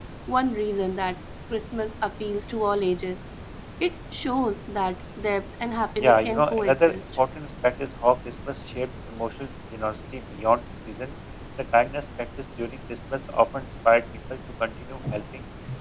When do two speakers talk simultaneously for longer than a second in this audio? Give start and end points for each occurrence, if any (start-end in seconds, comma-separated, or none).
6.0-7.2